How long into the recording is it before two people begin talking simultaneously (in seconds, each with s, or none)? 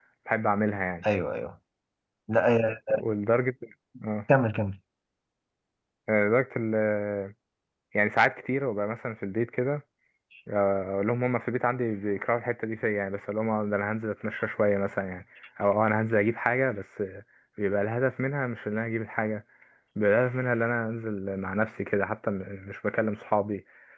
none